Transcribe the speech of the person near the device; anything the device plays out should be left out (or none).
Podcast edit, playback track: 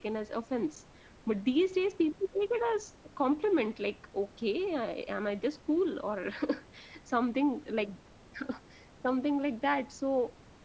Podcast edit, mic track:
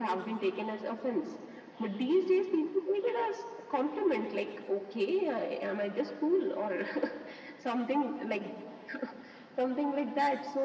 none